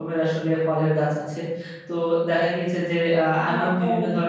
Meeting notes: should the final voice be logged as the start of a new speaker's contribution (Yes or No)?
No